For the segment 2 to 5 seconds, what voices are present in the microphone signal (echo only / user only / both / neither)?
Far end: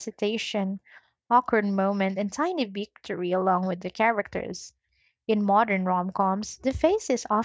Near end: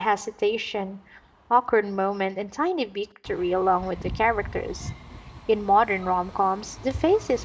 echo only